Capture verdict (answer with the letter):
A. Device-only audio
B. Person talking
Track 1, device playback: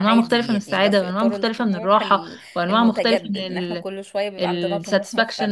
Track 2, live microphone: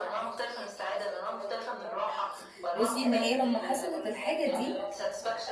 B